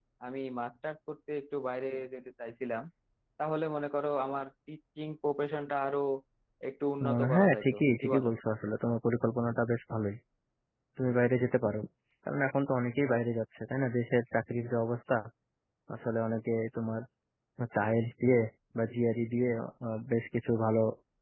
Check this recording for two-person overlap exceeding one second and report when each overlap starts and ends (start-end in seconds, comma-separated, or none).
7.0-8.3